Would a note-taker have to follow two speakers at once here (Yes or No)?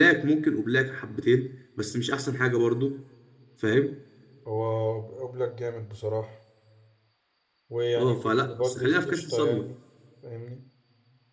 Yes